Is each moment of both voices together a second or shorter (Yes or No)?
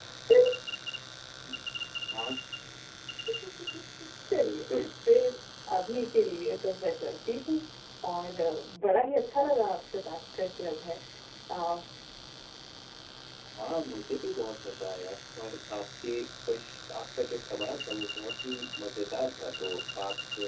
Yes